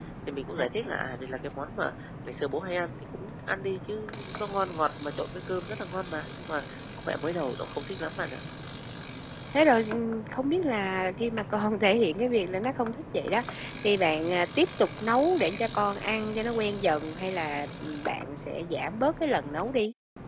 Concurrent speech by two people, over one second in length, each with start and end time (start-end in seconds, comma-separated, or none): none